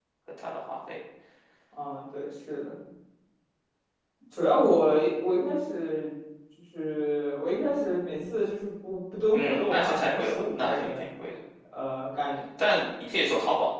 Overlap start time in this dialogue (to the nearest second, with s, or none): 9 s